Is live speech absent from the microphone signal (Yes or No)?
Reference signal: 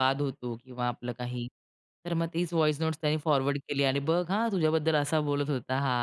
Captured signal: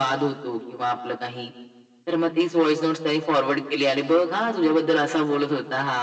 Yes